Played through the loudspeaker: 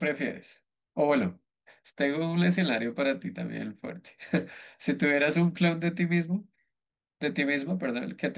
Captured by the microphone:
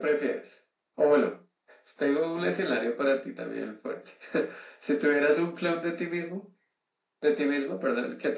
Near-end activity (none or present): none